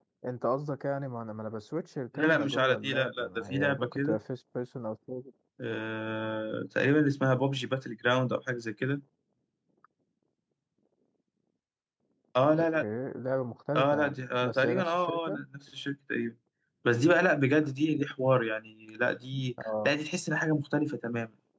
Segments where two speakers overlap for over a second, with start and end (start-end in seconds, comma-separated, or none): 2.1-4.2, 13.8-15.4